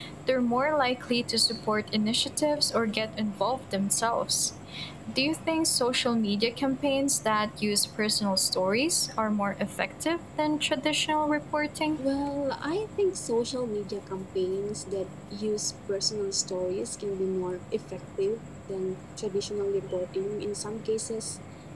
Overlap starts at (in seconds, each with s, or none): none